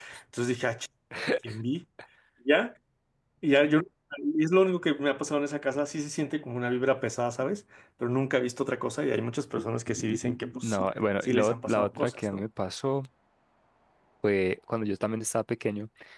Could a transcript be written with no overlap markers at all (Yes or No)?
No